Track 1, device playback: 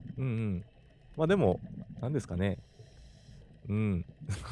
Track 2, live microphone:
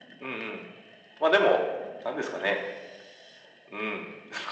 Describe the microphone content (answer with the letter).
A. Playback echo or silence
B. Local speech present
A